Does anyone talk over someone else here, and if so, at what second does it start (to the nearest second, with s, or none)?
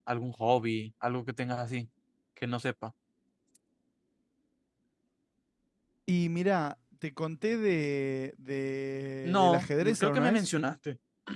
9 s